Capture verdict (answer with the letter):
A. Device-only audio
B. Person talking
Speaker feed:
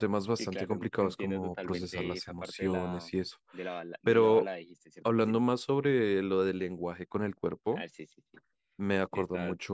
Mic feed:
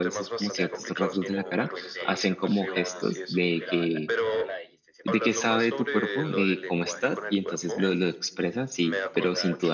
B